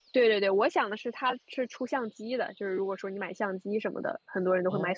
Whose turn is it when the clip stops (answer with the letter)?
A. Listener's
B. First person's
B